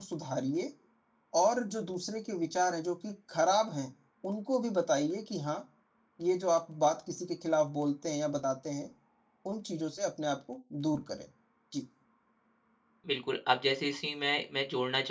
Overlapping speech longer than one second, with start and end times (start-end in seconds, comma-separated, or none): none